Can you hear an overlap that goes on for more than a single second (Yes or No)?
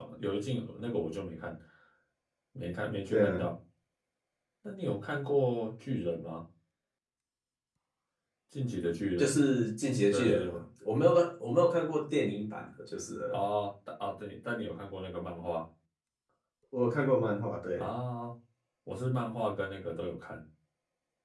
No